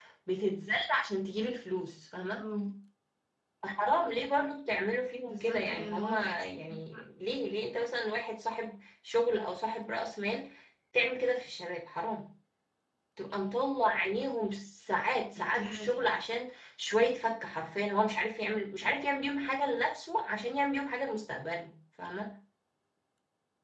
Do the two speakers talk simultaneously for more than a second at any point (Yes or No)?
Yes